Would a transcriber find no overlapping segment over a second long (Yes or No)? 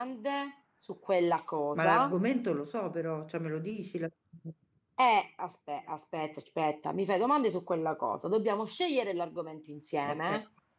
Yes